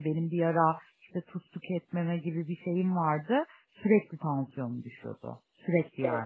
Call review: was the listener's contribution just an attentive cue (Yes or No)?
No